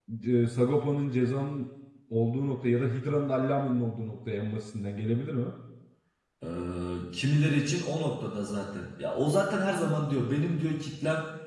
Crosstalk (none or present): none